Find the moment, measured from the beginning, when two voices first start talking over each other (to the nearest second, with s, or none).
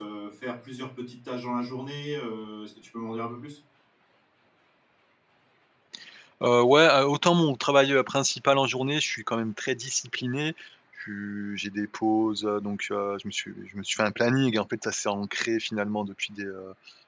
none